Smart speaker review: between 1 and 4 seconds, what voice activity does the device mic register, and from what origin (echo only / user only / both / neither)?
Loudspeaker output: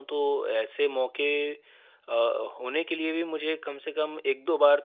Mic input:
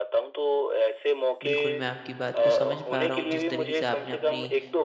both